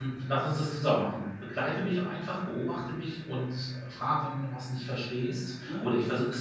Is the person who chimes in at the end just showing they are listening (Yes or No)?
Yes